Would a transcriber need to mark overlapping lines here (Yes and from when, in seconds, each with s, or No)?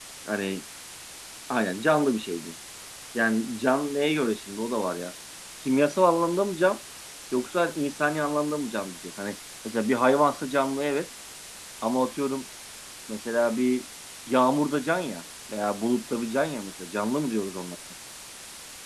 No